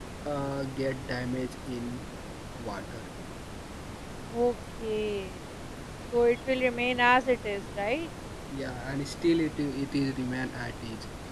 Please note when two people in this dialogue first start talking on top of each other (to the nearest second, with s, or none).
none